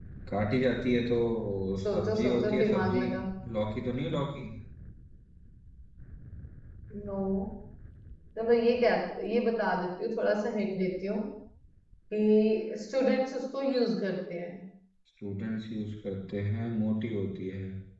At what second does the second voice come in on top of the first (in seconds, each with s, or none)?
1.8 s